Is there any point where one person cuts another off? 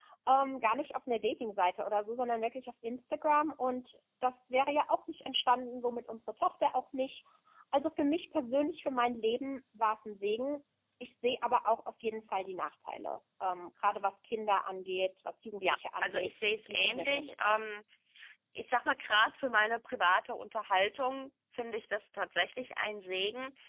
Yes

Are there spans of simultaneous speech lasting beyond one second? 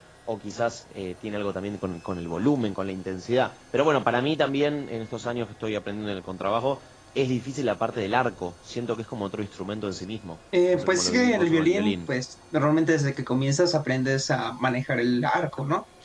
Yes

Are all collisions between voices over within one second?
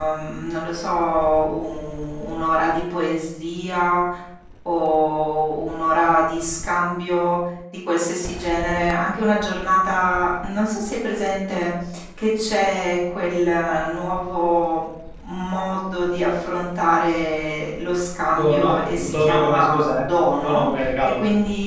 No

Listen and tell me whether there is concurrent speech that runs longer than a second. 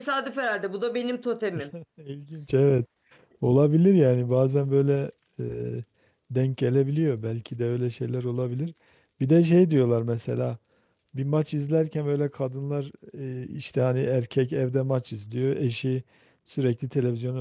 No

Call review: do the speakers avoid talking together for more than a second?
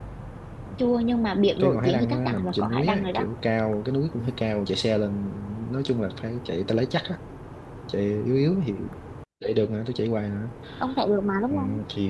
No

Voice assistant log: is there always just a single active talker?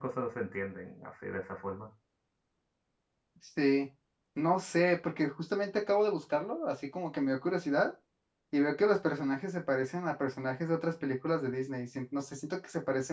Yes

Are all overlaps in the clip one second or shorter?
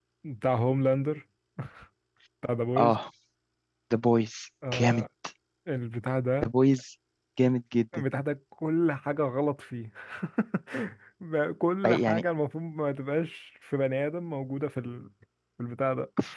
Yes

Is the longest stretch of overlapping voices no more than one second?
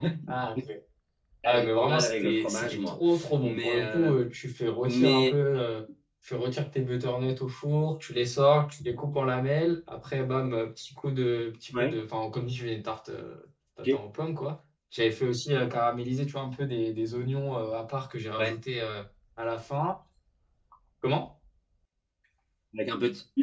No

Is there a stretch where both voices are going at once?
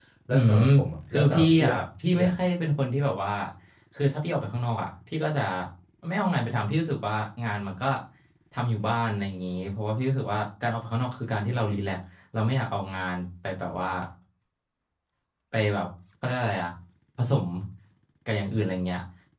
Yes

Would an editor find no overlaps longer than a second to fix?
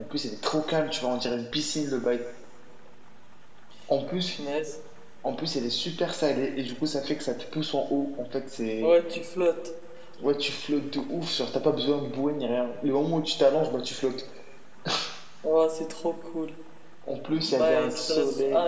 No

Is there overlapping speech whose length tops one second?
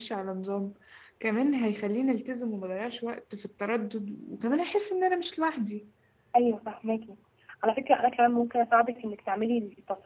No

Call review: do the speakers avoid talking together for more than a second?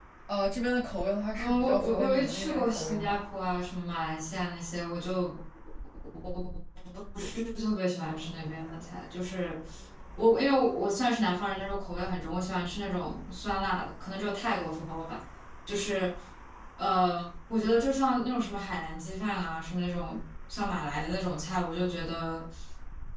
No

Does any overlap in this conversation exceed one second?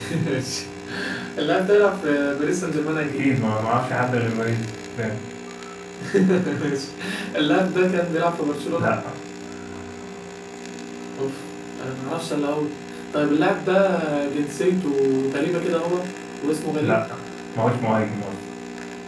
No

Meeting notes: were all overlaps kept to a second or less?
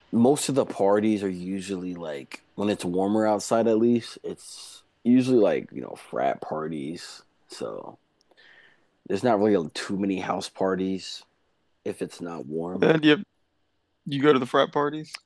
Yes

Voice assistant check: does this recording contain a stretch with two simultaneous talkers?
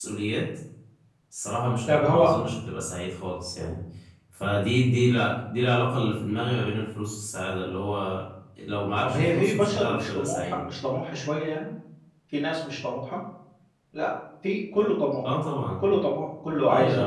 Yes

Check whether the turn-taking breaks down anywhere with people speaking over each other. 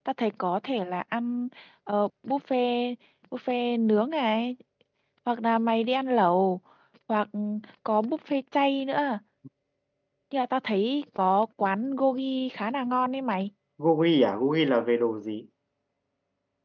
No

